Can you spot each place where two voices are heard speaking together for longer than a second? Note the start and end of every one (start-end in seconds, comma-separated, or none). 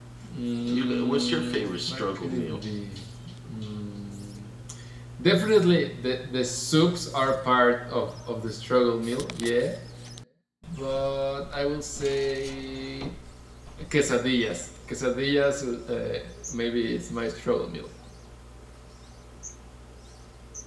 0.7-2.6